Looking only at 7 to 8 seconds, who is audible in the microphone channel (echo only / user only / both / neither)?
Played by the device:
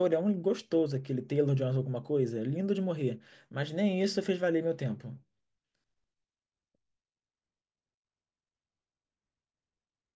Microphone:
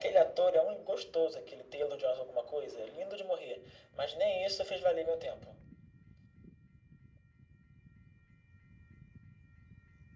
neither